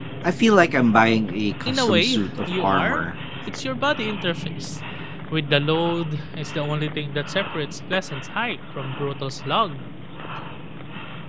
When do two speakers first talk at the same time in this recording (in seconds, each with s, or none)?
1.6 s